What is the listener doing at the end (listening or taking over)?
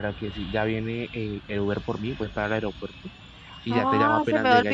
taking over